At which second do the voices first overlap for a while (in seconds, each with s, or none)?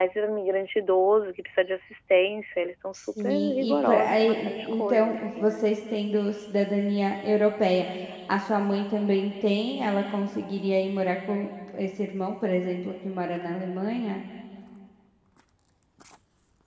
2.9 s